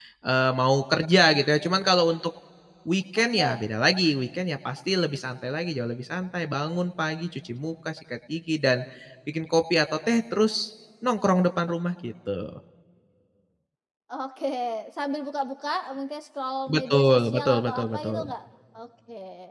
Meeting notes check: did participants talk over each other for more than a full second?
Yes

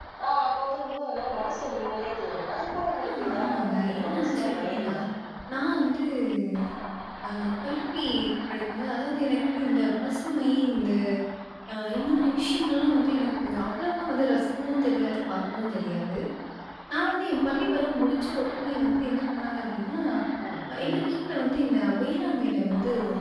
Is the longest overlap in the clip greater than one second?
Yes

